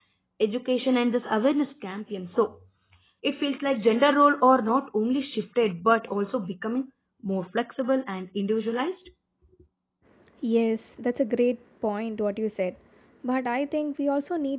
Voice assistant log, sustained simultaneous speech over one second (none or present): none